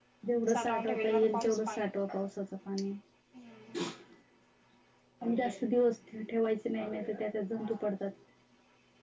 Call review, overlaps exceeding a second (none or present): present